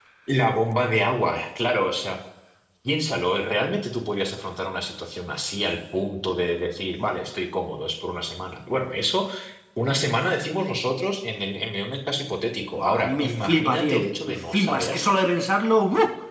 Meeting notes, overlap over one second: present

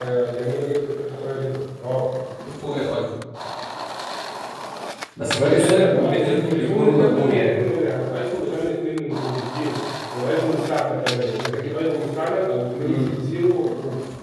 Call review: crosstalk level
present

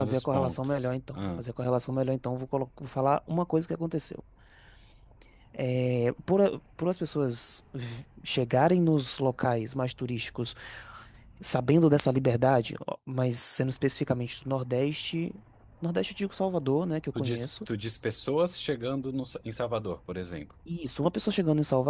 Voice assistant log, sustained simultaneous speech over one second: present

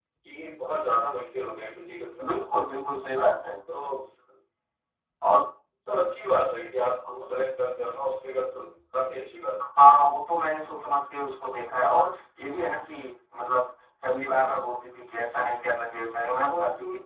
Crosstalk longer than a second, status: none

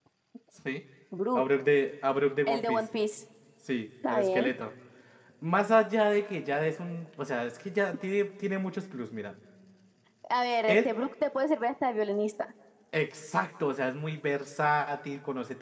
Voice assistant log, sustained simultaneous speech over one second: none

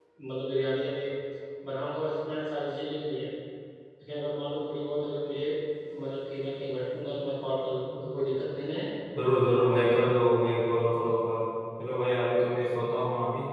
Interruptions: none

